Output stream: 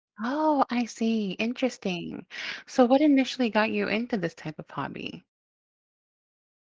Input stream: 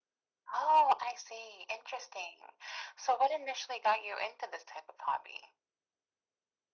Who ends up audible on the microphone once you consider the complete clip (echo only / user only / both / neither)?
echo only